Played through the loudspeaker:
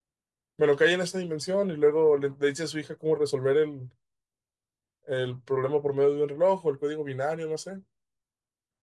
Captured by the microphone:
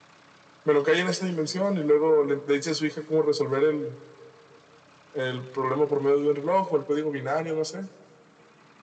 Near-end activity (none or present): none